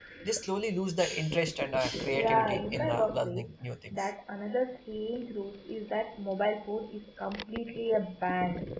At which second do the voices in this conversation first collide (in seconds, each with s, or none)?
2.1 s